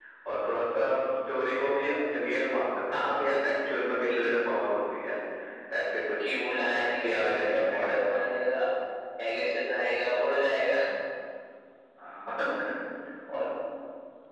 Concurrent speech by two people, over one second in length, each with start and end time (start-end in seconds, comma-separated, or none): 6.8-8.3